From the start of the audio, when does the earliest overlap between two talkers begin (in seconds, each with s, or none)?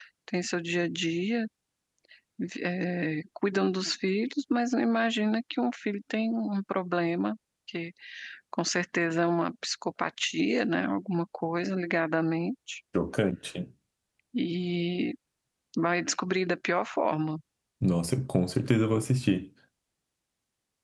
none